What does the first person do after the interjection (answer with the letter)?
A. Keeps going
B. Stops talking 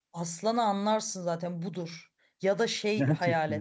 A